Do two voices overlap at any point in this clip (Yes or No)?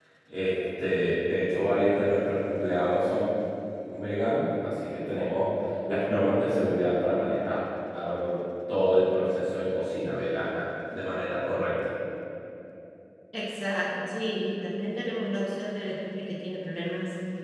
No